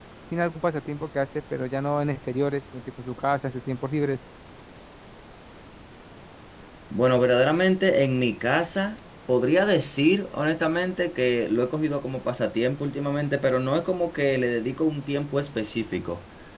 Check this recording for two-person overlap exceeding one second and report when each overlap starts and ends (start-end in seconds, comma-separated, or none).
none